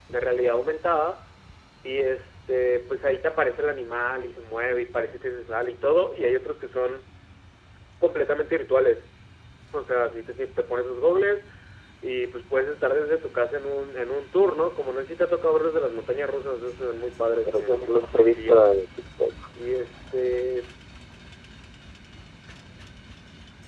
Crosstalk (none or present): present